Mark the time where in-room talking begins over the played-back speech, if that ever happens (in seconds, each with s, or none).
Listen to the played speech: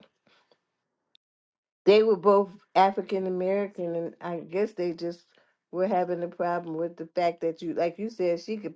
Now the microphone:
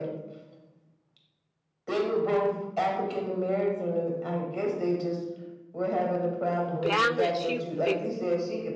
6.7 s